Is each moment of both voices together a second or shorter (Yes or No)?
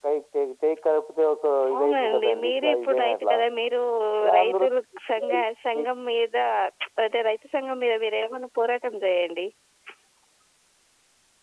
No